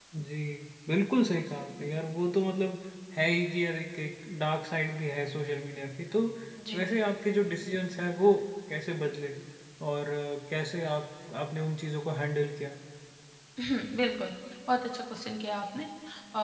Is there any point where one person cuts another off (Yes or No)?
No